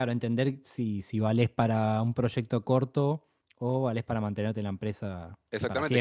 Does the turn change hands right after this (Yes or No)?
Yes